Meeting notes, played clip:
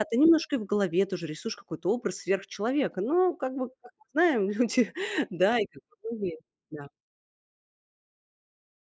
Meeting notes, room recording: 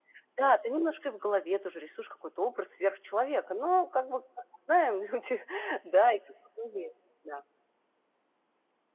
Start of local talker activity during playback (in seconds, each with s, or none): none